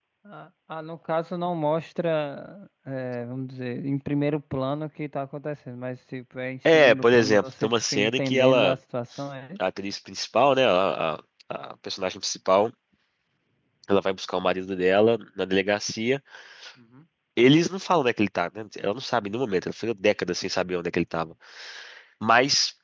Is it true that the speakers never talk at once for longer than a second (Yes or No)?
No